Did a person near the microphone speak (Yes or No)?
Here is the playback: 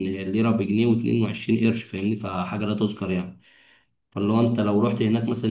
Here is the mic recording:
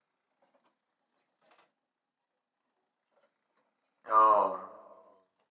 Yes